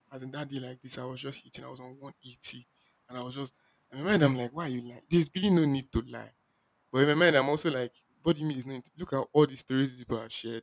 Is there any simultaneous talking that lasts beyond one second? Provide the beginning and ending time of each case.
none

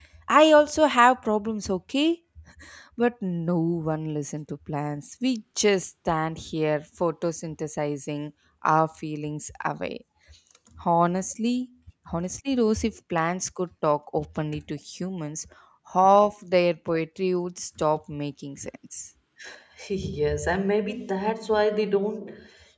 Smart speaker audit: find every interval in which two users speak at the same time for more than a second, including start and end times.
none

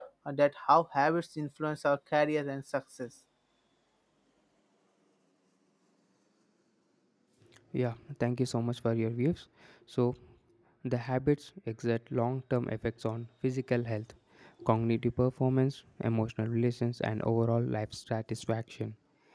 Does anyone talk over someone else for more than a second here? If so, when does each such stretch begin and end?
none

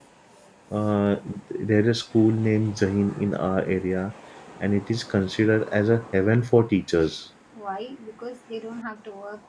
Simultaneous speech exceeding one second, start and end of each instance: none

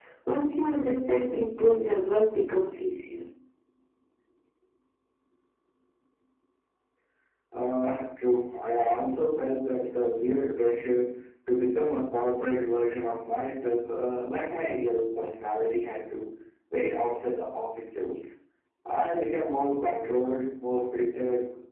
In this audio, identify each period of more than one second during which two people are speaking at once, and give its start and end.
none

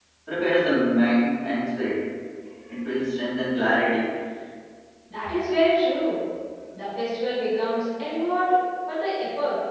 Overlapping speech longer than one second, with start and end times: none

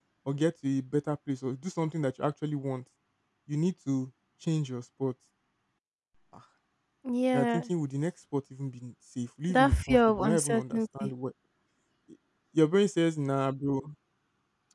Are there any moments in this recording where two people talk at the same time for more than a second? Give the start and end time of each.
9.5-11.1

